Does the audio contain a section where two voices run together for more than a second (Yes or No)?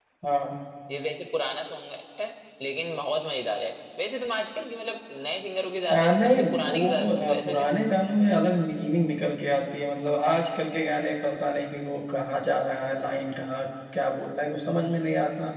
Yes